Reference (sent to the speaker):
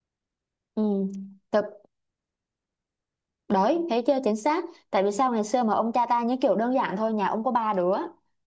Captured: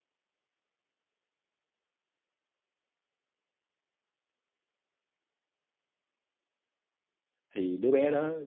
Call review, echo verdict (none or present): none